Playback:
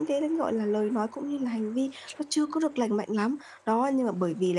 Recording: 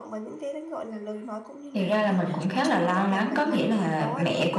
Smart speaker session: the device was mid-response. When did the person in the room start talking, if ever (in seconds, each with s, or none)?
1.7 s